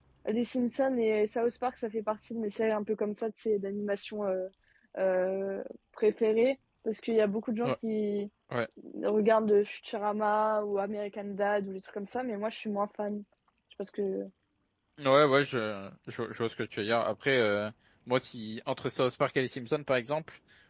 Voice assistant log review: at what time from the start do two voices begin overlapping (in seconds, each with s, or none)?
none